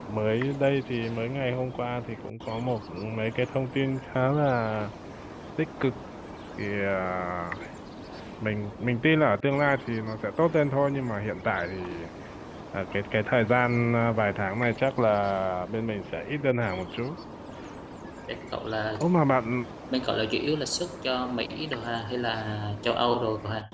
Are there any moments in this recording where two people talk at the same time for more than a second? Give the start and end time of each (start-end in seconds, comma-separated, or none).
none